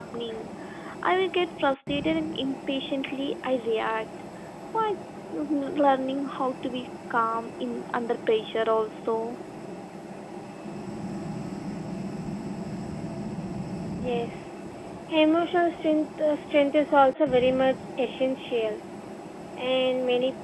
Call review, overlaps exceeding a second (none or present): none